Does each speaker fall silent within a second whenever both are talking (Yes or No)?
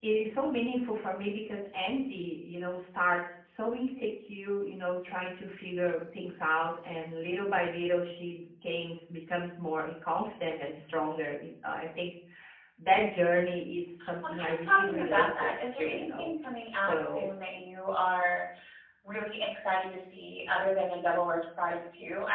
No